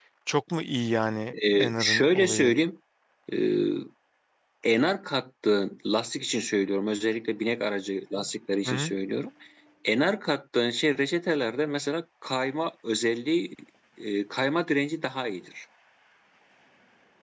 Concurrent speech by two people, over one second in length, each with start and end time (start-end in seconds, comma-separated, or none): 1.3-2.5